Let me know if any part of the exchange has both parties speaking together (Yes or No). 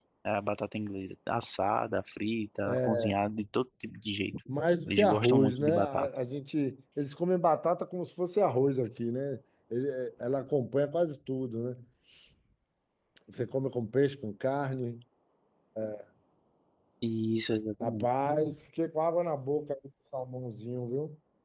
Yes